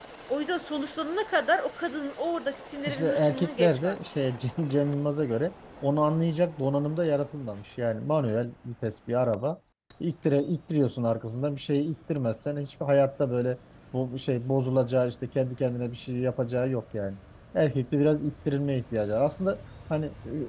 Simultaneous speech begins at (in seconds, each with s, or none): 2.9 s